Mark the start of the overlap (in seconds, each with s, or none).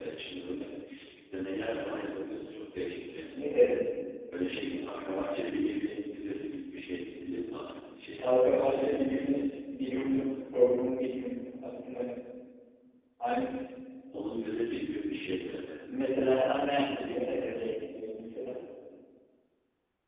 8.2 s